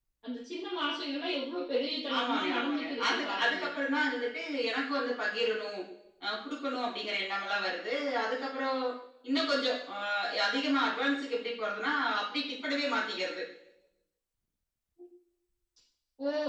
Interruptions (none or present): present